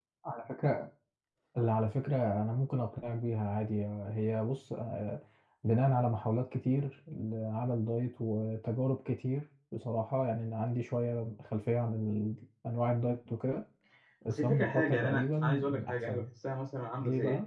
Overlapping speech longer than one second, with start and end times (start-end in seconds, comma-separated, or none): 14.3-16.2